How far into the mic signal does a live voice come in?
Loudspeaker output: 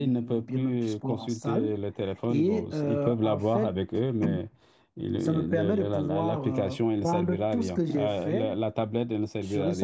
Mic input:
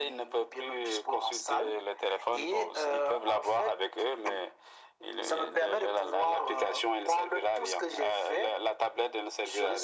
none

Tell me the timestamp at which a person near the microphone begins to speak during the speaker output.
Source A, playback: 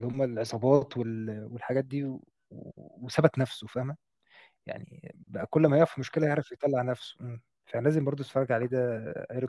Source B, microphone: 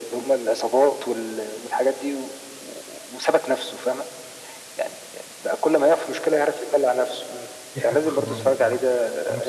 7.7 s

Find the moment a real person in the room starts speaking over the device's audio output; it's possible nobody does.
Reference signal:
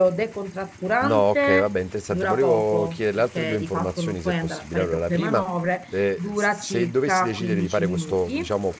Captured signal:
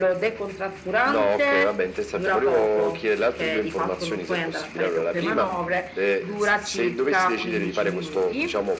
none

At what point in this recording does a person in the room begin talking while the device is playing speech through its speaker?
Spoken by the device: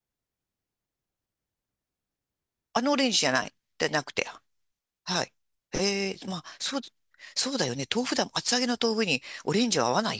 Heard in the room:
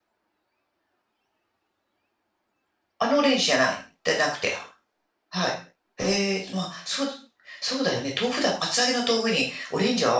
none

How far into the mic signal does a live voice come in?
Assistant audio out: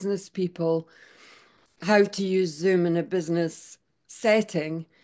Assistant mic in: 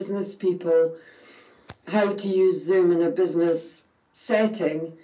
none

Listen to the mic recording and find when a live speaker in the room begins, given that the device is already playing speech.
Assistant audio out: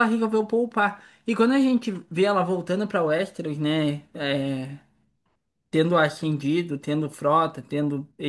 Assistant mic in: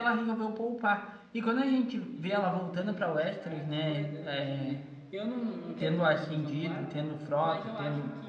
2.1 s

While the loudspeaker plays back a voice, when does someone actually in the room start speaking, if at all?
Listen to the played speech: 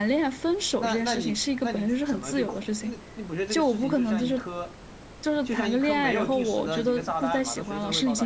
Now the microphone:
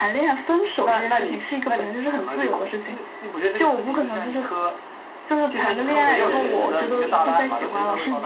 5.6 s

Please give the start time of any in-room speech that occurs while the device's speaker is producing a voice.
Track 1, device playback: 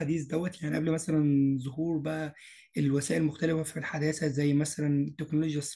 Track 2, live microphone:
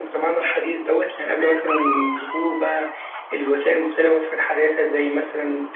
none

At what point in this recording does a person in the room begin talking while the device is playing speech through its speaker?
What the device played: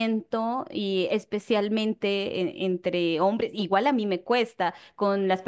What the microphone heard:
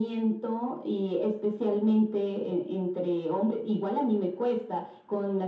none

